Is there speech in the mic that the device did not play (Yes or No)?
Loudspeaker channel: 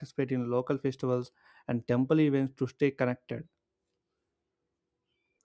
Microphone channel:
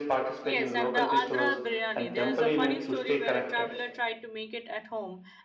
Yes